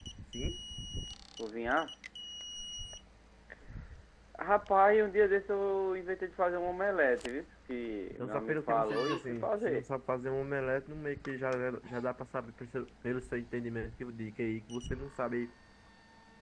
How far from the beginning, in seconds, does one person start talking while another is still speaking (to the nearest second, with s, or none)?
8 s